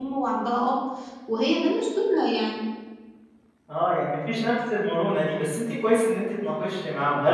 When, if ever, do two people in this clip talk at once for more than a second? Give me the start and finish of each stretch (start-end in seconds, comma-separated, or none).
none